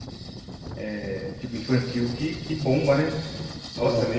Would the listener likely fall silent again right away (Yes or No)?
Yes